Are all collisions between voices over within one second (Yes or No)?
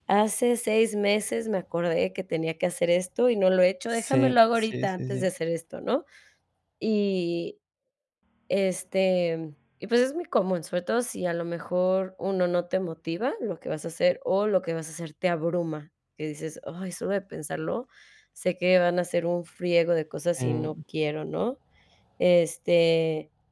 No